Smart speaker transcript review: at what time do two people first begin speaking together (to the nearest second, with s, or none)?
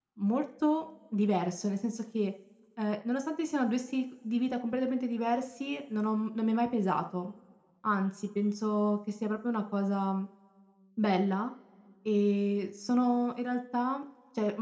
none